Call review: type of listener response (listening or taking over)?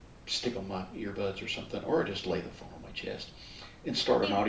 listening